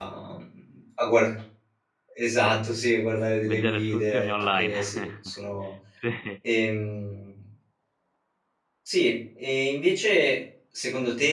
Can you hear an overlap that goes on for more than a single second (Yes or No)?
Yes